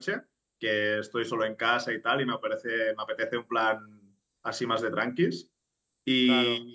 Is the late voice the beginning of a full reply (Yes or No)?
No